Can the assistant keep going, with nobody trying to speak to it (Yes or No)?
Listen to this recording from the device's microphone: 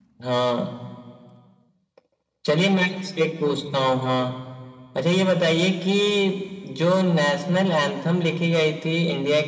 Yes